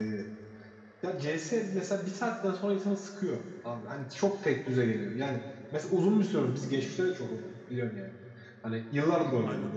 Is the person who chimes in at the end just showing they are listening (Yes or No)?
Yes